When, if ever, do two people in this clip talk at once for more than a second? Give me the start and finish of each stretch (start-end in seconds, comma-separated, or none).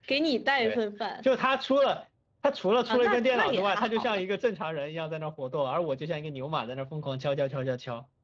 2.9-4.2